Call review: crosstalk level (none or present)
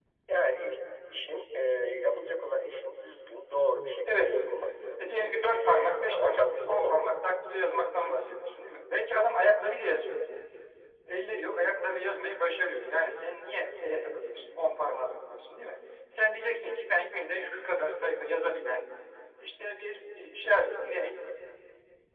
present